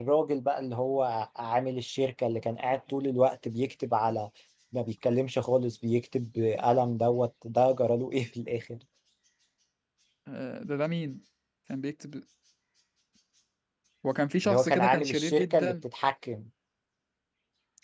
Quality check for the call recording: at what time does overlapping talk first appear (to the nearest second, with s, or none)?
14 s